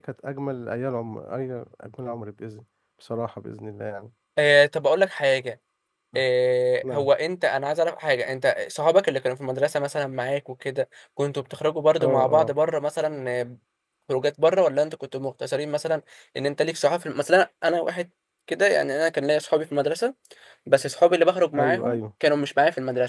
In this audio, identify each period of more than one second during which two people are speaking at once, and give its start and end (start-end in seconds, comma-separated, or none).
none